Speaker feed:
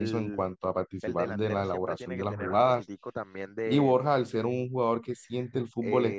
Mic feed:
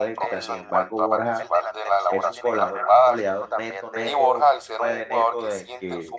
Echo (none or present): present